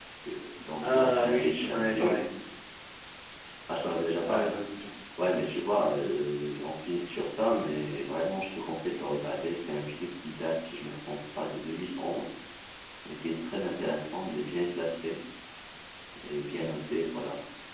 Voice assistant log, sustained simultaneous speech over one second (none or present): present